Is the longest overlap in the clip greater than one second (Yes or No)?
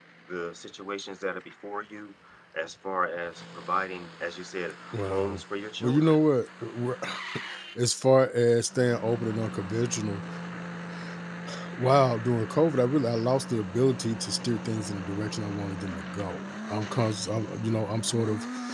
No